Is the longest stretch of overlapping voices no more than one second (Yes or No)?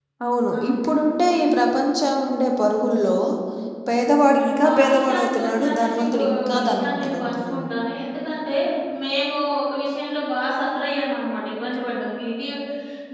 No